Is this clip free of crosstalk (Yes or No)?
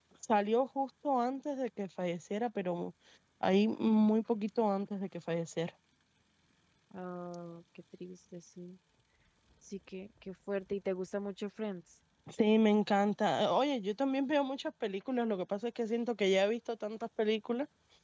Yes